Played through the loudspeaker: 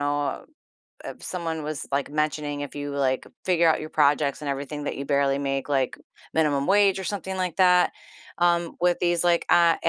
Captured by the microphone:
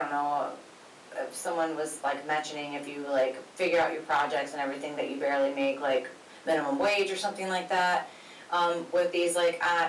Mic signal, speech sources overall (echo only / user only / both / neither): echo only